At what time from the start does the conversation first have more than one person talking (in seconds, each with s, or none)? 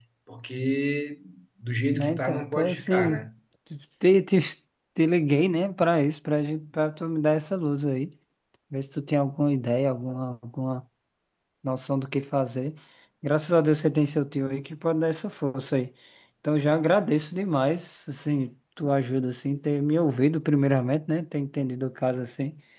1.9 s